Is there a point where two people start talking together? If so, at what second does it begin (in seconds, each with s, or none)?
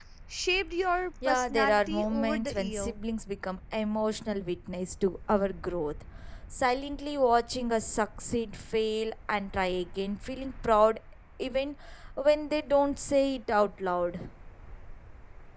1.2 s